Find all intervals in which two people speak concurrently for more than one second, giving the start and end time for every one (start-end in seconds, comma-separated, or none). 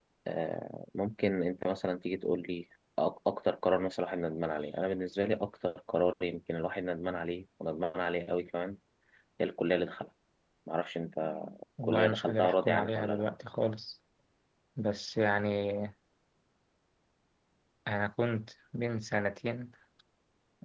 11.8-13.2